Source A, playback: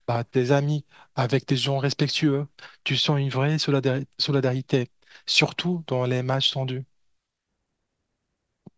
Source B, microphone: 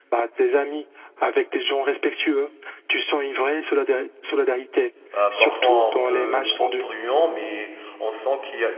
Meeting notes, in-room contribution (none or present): present